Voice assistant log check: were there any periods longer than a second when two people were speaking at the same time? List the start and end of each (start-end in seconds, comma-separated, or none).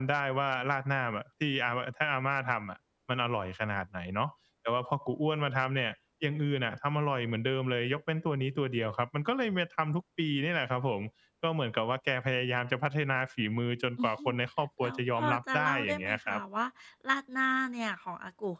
14.8-16.4